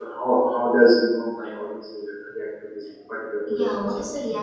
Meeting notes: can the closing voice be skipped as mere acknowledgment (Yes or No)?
No